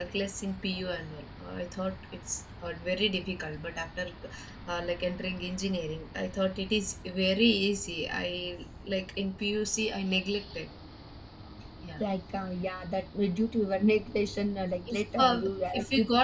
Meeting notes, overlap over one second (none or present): present